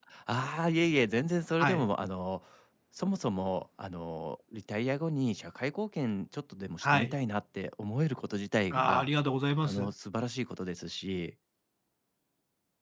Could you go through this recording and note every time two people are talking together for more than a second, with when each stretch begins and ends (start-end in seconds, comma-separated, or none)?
none